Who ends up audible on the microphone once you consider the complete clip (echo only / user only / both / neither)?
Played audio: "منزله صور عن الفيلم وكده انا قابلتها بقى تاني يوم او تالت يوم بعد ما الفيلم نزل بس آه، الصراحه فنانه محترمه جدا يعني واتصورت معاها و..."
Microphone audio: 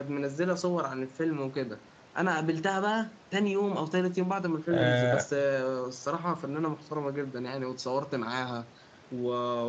both